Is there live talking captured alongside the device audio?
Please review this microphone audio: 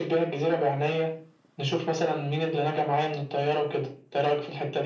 No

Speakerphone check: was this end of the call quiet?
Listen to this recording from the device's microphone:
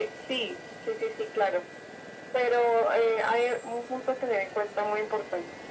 Yes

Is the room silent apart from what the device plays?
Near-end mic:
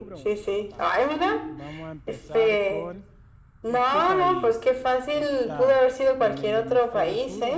No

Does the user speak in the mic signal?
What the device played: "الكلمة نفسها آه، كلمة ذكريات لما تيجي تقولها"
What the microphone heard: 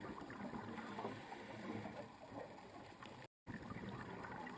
No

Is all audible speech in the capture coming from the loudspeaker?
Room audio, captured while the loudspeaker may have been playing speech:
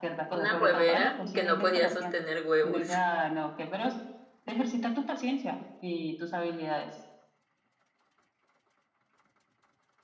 No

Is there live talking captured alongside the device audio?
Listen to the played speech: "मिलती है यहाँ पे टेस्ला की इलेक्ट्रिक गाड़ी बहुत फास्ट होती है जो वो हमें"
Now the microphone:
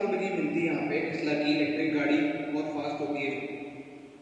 No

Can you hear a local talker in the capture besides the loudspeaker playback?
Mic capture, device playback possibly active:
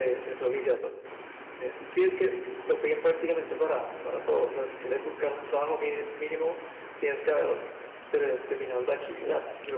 No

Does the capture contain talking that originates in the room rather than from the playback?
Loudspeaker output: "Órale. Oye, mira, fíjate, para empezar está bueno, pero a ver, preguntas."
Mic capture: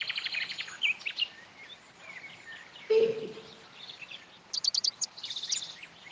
Yes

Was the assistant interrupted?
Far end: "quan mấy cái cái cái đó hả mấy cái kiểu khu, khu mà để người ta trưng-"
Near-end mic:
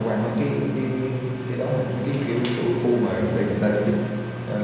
No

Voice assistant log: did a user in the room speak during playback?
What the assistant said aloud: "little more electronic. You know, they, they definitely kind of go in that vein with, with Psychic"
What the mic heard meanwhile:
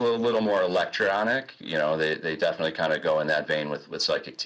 No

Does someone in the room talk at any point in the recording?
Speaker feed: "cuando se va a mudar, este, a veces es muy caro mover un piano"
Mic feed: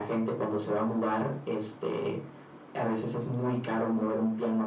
No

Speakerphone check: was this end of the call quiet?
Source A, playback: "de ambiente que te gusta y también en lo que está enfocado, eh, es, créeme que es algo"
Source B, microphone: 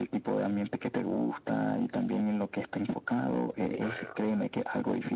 No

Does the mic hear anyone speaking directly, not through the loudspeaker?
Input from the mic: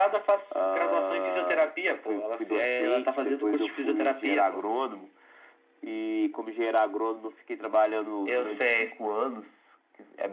No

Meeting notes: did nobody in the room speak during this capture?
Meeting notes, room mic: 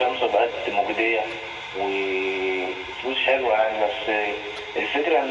Yes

